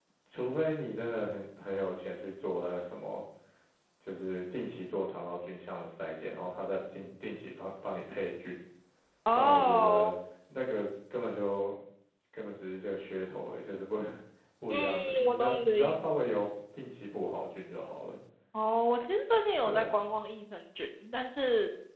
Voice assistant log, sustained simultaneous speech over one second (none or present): present